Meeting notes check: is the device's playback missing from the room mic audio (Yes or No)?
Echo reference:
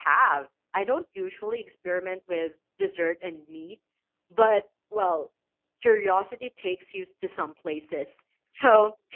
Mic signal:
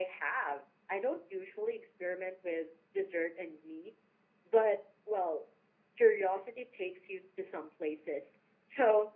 No